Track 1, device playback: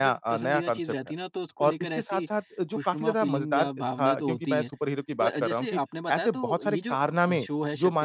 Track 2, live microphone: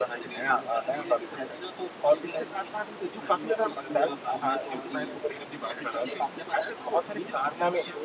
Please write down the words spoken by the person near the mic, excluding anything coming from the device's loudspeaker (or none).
none